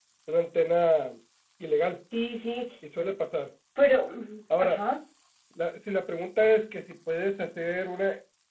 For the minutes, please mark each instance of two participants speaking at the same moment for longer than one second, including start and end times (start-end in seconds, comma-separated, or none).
none